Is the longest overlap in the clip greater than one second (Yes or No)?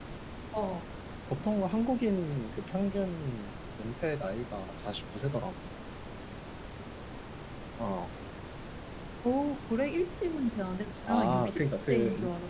Yes